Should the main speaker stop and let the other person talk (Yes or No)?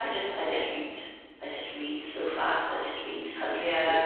Yes